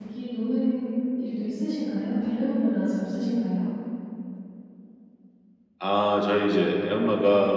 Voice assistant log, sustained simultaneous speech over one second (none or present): none